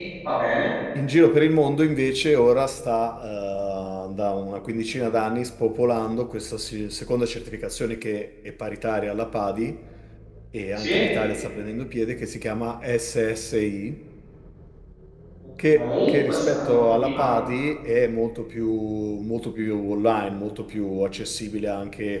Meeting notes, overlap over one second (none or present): present